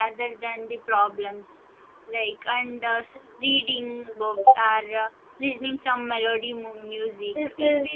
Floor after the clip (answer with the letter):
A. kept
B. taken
B